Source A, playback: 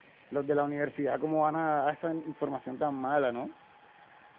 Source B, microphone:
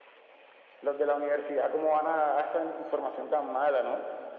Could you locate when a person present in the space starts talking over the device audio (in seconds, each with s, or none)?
none